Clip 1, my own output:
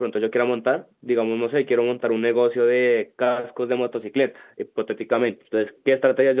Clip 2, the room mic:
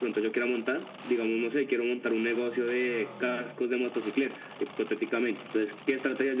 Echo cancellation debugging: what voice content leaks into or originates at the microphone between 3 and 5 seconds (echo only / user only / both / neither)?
echo only